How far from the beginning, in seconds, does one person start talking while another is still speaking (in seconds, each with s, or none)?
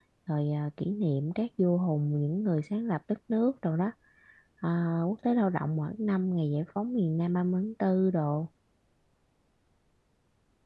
none